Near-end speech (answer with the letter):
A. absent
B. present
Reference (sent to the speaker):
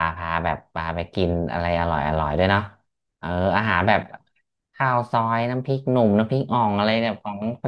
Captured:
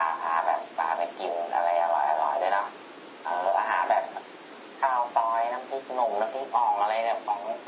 A